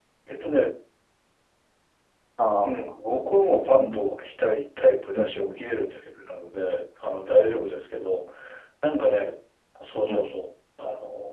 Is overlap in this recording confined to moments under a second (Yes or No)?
Yes